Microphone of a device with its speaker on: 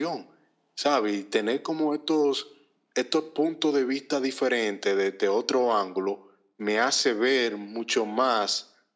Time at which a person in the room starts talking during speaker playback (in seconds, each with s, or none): none